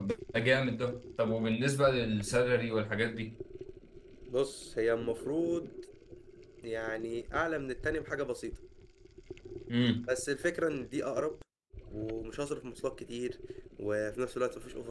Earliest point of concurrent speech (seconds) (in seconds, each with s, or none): none